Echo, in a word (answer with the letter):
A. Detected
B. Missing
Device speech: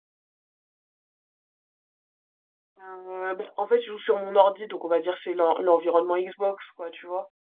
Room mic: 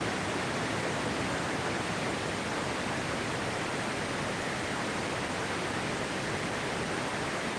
B